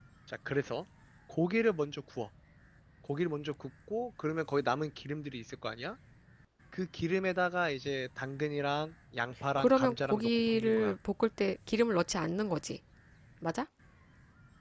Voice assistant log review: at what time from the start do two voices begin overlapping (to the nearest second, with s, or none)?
10 s